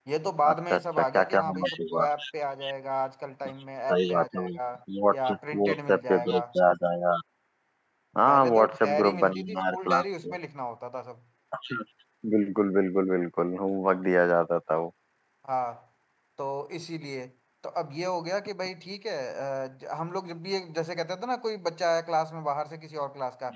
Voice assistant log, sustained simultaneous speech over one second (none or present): present